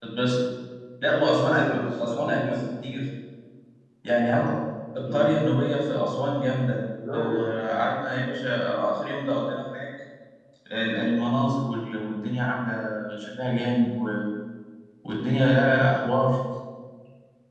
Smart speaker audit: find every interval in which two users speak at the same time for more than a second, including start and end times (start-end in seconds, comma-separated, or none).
1.4-2.6